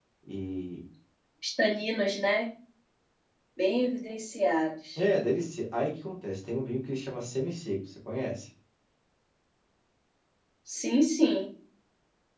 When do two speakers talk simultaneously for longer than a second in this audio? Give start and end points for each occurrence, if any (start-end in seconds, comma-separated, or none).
none